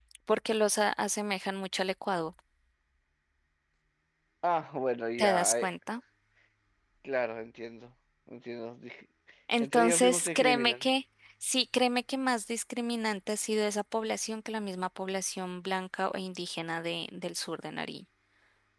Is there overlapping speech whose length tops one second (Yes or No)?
Yes